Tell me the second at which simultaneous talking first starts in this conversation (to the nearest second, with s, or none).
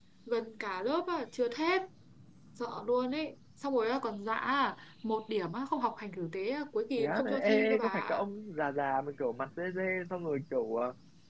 7 s